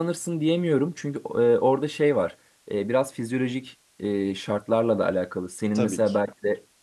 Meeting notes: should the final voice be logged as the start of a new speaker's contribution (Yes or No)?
No